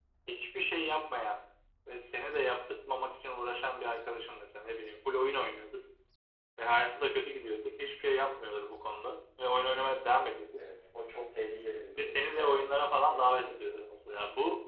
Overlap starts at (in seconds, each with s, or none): 11.9 s